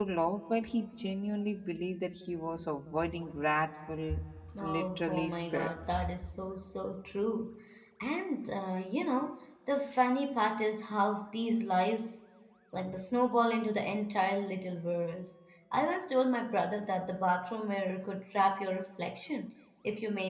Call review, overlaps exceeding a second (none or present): present